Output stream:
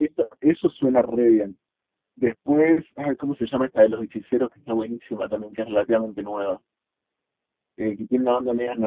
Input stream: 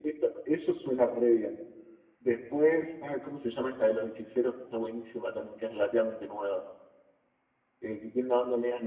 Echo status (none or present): present